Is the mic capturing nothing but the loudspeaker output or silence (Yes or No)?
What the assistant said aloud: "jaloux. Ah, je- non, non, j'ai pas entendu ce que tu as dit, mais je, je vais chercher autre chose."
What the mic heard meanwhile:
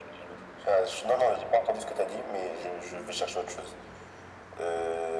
Yes